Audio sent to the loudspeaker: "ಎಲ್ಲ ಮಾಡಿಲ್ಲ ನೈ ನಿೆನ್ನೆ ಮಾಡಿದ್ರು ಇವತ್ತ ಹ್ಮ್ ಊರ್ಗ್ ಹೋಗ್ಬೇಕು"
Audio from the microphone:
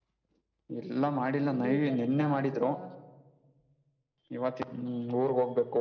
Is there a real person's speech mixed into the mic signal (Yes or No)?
Yes